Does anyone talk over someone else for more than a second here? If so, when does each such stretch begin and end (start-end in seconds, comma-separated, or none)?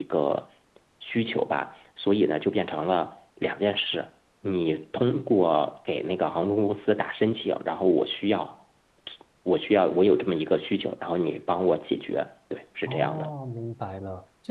none